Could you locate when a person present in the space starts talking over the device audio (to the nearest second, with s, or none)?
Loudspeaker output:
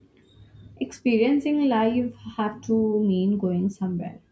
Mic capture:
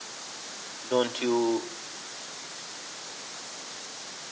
1 s